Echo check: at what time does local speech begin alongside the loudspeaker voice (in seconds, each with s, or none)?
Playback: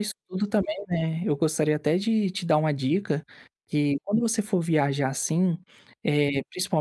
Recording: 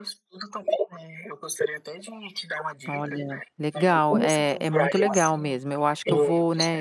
2.9 s